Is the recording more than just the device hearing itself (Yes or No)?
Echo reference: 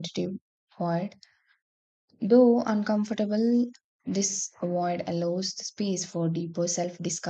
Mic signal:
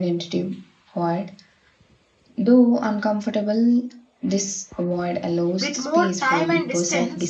Yes